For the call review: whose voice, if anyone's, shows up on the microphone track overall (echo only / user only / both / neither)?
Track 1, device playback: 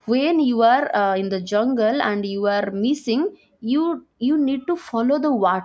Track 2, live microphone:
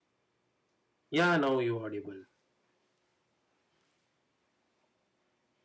user only